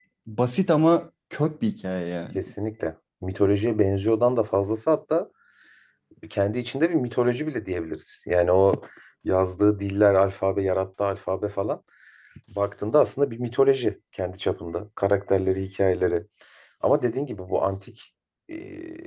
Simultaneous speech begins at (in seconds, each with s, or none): none